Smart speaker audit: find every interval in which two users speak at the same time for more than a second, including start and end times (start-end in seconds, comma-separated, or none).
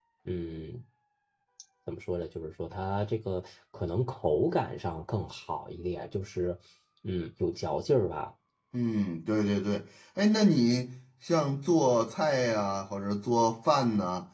none